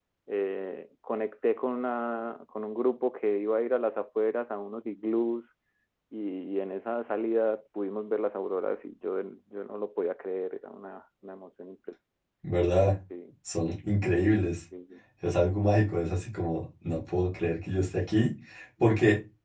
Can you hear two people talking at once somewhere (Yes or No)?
No